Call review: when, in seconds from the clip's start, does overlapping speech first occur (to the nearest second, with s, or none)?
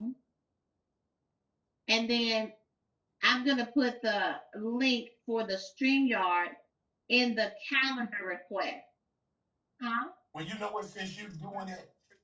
none